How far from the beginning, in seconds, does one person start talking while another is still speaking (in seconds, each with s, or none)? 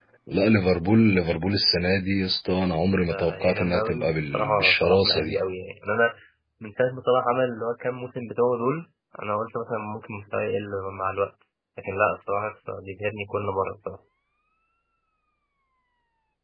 3.1 s